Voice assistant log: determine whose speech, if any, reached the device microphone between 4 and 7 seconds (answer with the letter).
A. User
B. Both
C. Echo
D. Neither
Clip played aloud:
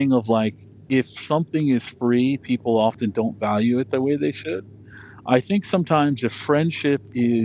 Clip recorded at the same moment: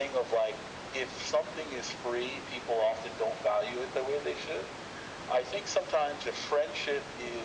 C